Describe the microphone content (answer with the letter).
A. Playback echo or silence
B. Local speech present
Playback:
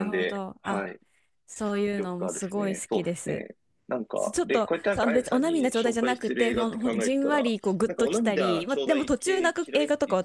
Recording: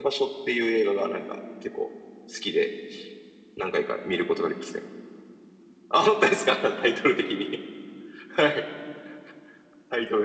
B